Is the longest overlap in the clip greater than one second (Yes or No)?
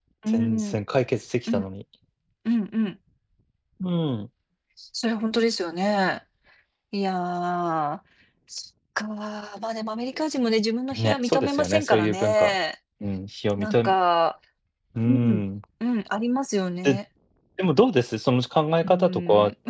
Yes